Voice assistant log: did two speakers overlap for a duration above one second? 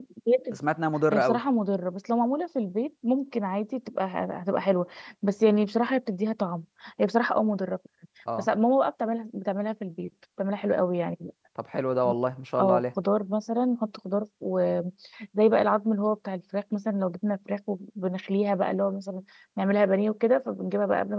No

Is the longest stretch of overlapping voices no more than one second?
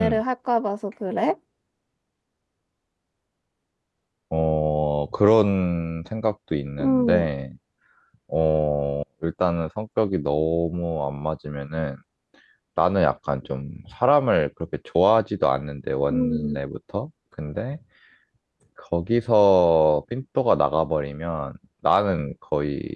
Yes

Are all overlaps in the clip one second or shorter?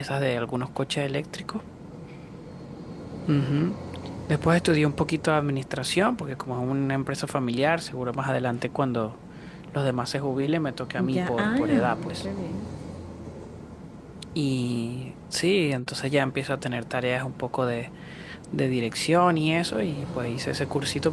No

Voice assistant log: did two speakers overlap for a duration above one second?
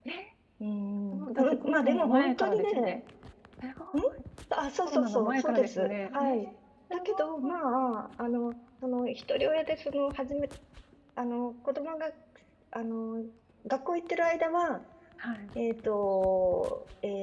Yes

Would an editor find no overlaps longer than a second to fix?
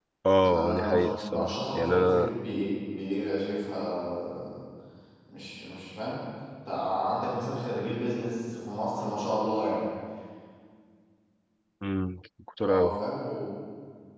No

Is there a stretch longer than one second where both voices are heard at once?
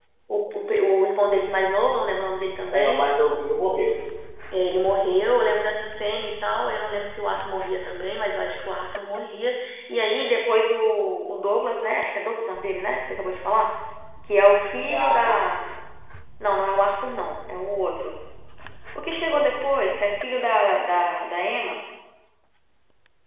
No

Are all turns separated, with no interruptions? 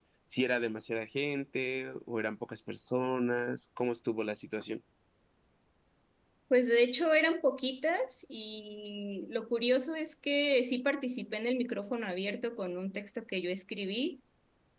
Yes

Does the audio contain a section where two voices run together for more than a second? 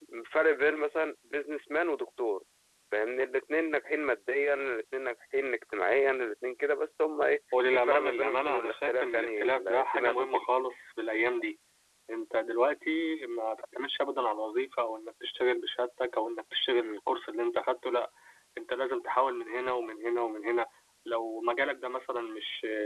Yes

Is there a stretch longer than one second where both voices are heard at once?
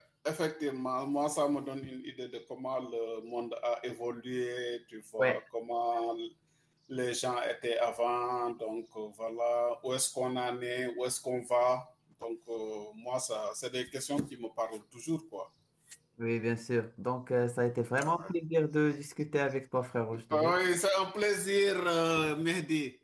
No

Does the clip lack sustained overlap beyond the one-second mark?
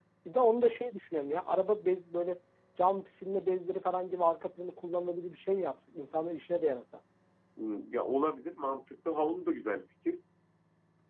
Yes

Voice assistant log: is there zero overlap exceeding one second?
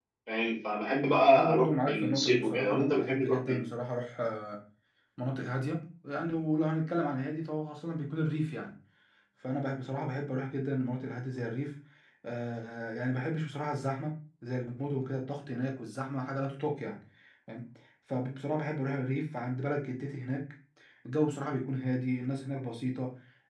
No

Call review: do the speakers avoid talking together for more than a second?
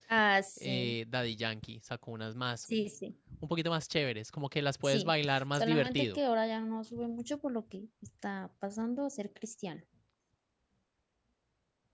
No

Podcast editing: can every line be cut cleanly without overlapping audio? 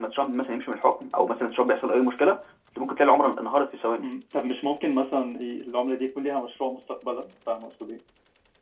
Yes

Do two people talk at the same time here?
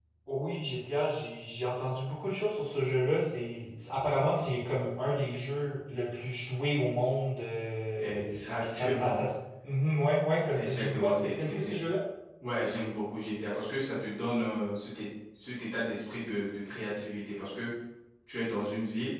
Yes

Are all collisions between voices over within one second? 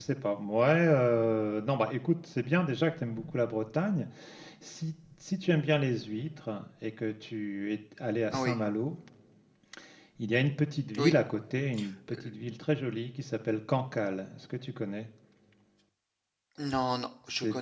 Yes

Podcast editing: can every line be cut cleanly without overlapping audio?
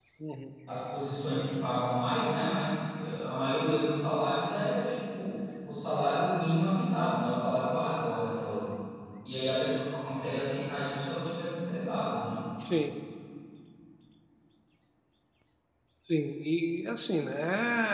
Yes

